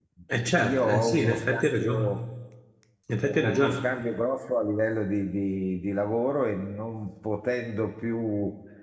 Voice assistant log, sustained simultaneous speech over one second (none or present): present